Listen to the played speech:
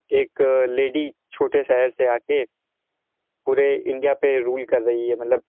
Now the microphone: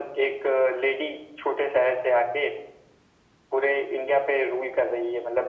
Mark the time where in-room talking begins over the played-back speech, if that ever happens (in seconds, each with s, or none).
none